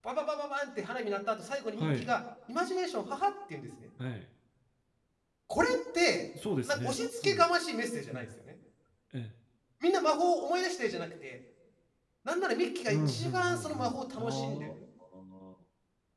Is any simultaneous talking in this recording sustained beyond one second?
Yes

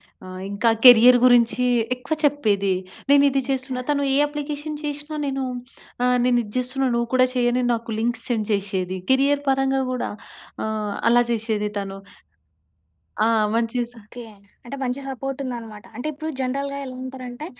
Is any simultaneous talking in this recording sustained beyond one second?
No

